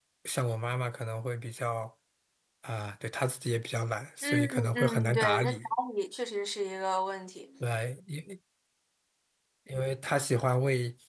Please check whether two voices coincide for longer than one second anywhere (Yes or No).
Yes